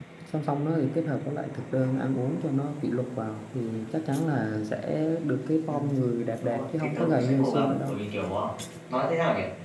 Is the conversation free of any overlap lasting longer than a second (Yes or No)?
No